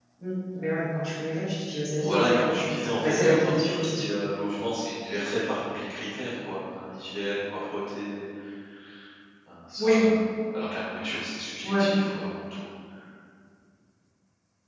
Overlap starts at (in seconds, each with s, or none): 2.0 s